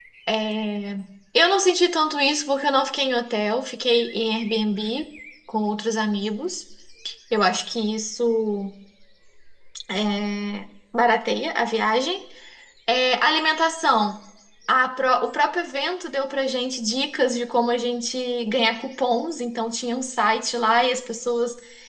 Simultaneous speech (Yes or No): No